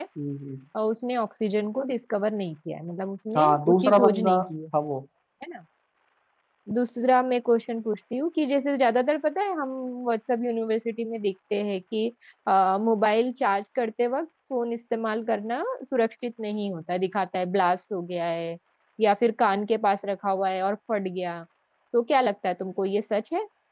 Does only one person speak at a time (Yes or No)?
No